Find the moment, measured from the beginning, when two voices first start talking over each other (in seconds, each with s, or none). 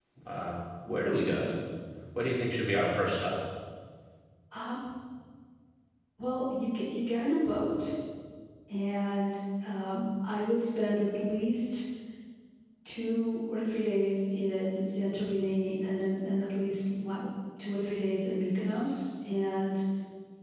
none